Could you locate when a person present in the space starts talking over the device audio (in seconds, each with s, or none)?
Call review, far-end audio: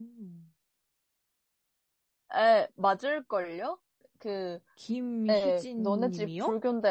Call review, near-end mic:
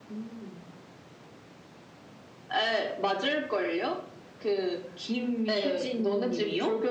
none